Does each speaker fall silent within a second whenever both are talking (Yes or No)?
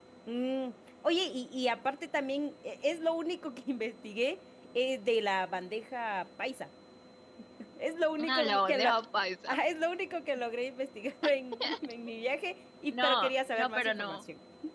No